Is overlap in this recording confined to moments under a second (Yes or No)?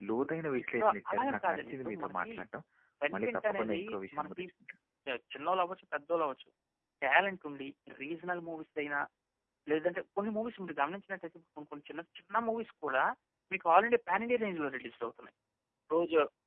No